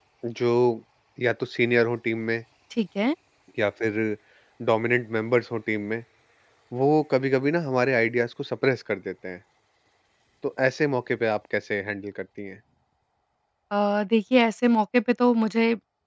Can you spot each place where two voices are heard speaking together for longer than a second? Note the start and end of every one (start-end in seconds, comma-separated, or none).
none